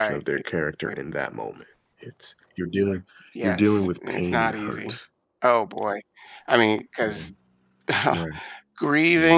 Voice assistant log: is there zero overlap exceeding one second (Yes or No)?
No